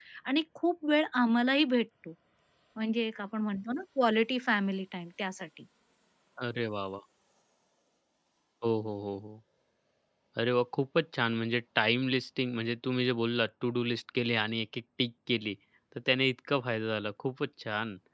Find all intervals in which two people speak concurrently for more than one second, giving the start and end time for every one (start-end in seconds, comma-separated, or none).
none